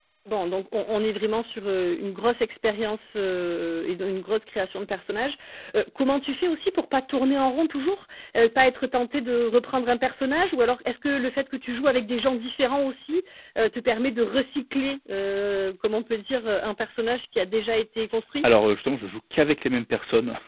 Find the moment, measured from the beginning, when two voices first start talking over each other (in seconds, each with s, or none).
none